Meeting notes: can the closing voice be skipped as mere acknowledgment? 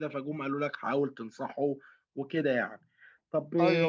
Yes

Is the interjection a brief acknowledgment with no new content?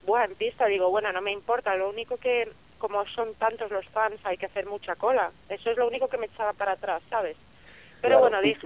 No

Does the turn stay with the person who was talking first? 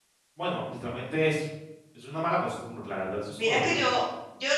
No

